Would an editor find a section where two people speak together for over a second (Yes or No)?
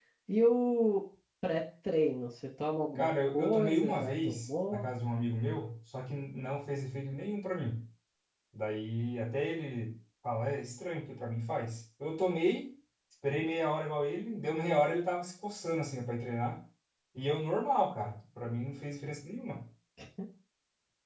Yes